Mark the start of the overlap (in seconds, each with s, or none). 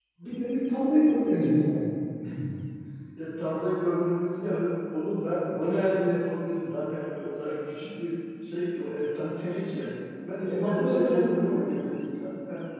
10.5 s